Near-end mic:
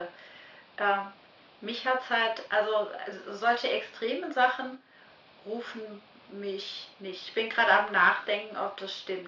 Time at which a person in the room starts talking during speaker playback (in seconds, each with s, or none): none